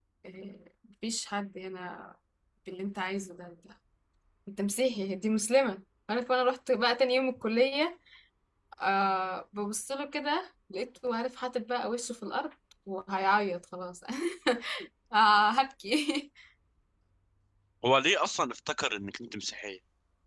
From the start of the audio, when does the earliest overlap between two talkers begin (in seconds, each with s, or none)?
none